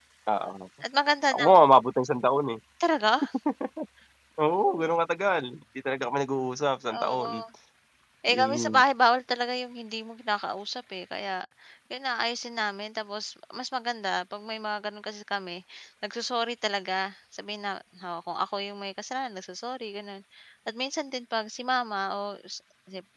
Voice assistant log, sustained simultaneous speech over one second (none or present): none